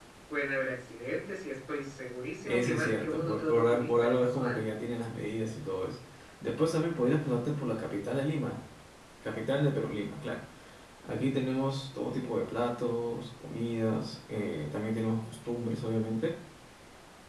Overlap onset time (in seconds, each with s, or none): 2.5 s